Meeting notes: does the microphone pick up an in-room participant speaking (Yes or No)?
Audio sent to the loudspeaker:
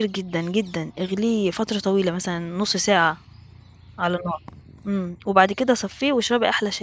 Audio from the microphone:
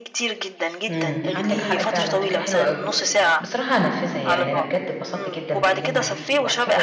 Yes